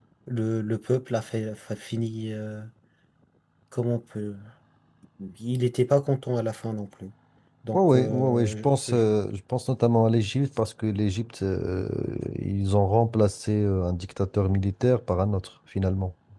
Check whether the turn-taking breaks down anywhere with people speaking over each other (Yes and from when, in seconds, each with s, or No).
Yes, from 7.7 s